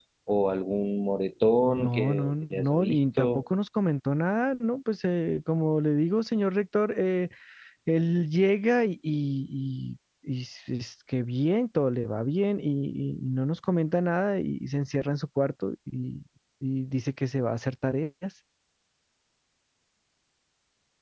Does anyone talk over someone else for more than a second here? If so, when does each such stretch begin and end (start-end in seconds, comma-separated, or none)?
1.8-3.4